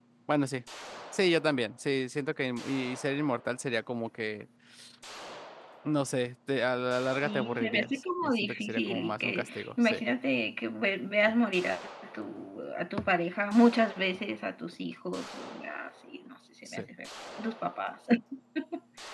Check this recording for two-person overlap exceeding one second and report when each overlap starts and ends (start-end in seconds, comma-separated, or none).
7.2-10.0